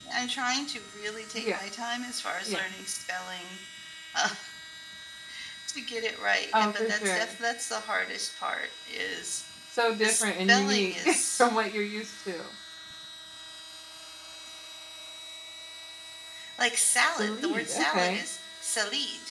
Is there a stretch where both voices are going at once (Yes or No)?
Yes